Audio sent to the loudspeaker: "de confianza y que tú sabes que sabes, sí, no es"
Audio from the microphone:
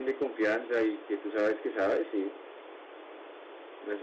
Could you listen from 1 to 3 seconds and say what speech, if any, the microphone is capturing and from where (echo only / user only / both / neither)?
echo only